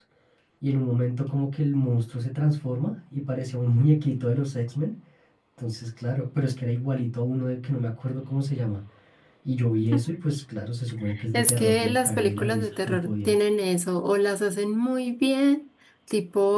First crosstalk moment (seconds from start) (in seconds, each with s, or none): 11.3 s